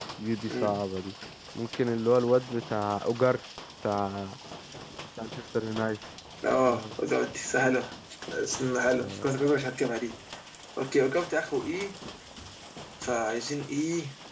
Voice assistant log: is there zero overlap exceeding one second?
Yes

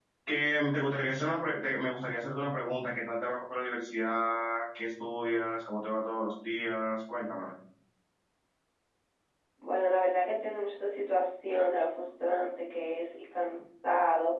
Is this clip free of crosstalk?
Yes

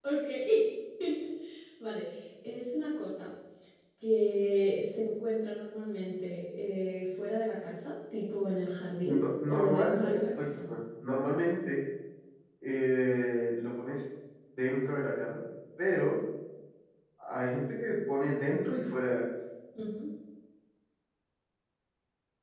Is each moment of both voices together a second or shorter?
No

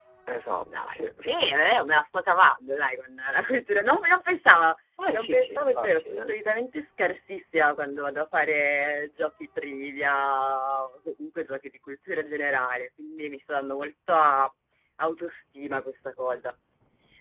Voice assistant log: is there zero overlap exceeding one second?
No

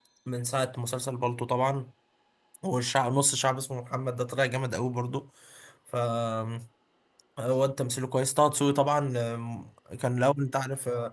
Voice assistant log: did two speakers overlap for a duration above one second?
No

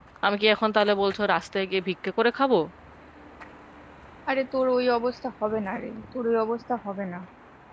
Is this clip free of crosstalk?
Yes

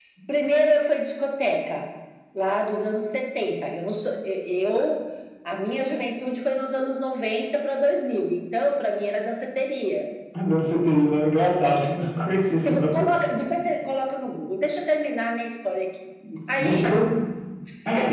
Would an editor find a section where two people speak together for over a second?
No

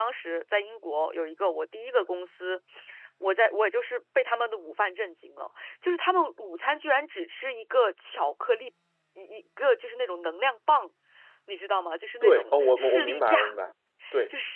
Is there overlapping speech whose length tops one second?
Yes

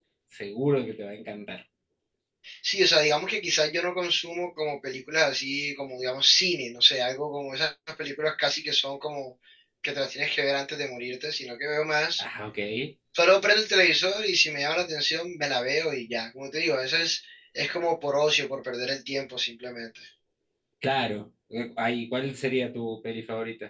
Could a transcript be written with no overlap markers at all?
Yes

